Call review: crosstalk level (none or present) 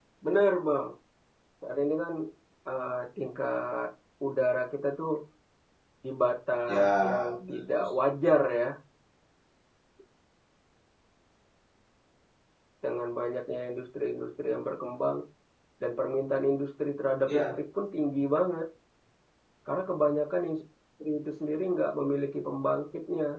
present